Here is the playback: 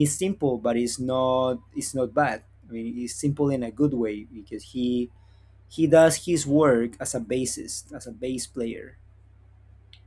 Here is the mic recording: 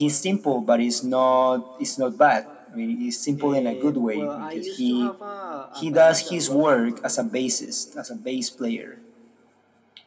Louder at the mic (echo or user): echo